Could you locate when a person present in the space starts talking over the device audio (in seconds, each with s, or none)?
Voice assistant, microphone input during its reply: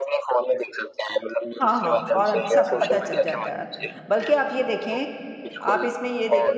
1.6 s